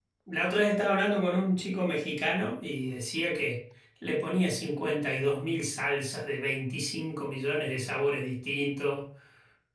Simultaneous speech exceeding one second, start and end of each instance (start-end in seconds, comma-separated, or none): none